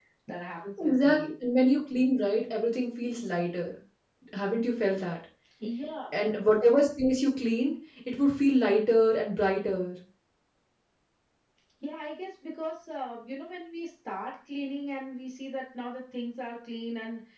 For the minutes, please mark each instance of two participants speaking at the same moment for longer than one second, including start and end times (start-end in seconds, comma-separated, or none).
none